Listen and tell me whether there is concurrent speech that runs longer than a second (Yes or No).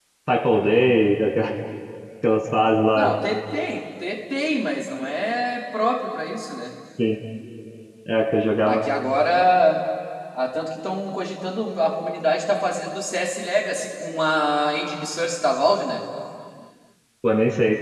No